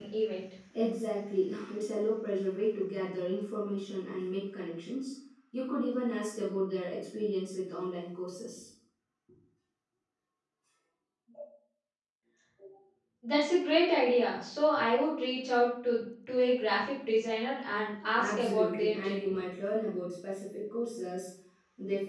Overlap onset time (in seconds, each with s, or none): 18.2 s